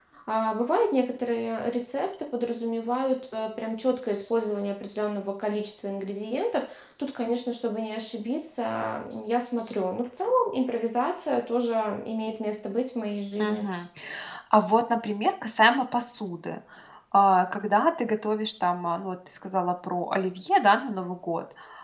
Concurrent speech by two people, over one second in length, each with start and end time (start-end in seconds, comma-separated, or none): none